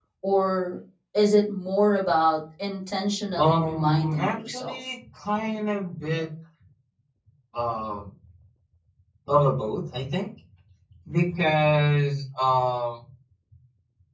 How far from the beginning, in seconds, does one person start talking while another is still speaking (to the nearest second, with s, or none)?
3 s